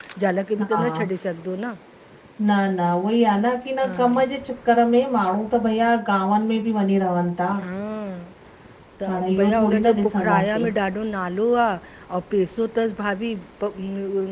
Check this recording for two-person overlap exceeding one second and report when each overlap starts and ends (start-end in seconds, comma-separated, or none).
9.1-10.7